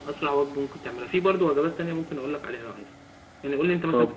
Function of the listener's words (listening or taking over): listening